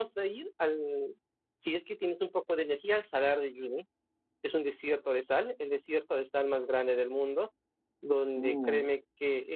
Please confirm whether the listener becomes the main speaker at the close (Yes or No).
No